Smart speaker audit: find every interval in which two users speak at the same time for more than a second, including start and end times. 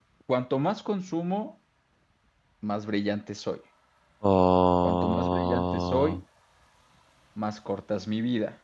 4.8-6.2

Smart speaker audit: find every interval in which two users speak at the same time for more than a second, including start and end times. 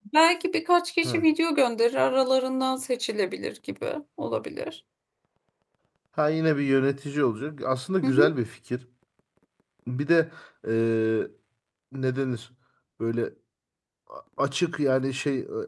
none

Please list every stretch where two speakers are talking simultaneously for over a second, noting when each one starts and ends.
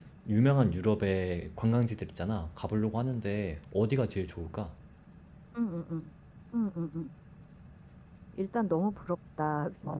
none

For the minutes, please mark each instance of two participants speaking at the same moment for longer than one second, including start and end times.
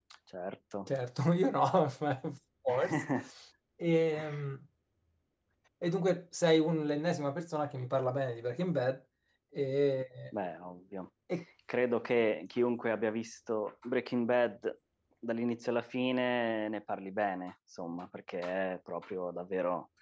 none

